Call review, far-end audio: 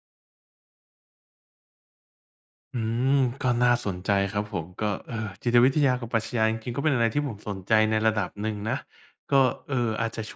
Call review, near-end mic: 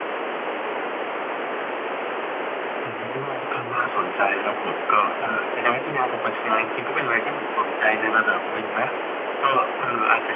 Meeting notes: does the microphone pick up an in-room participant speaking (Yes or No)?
No